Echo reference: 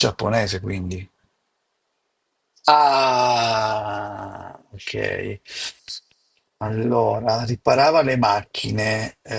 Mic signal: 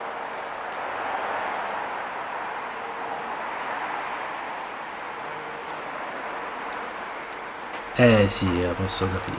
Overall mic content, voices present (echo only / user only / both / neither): user only